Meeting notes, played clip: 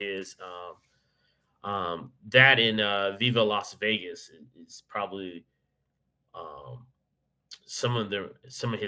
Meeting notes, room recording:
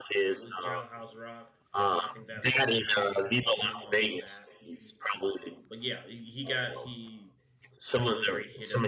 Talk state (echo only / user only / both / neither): both